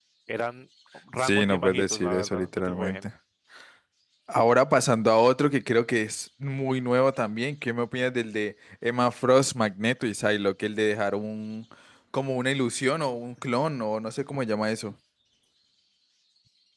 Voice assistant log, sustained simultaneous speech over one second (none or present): present